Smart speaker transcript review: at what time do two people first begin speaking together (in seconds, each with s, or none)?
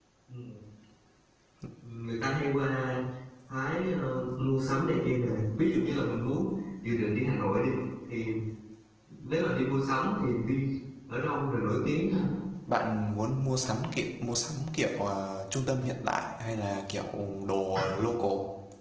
none